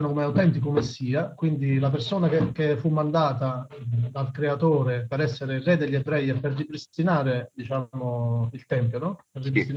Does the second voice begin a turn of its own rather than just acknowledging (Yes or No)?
No